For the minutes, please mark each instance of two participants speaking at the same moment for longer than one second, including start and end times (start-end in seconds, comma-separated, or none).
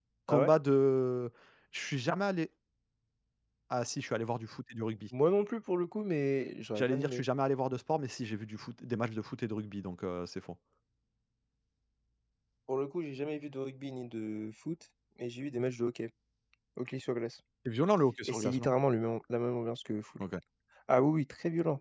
none